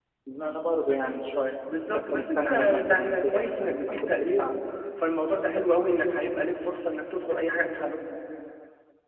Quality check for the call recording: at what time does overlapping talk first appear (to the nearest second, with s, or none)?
2 s